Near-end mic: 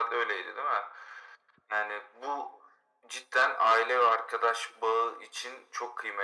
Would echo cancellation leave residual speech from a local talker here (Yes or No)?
No